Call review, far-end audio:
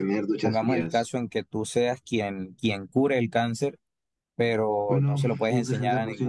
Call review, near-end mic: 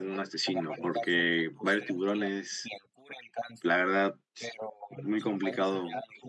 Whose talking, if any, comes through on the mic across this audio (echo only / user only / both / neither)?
both